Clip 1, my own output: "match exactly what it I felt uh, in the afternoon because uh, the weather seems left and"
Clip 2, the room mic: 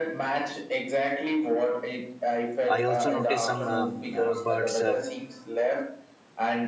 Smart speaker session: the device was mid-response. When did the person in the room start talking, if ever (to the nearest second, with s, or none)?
3 s